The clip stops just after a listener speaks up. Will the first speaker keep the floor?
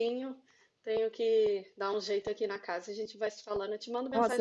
No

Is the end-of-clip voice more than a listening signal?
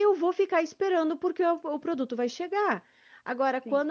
No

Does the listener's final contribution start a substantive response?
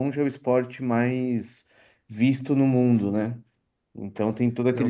Yes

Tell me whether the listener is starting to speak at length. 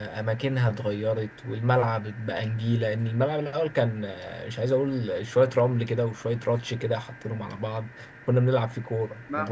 Yes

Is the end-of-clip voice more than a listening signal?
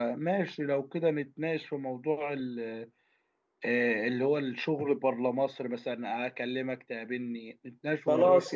Yes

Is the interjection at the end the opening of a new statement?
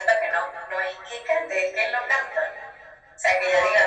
No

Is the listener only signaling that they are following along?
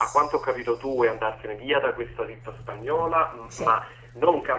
Yes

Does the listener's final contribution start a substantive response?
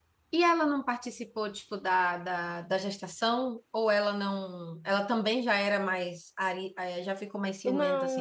Yes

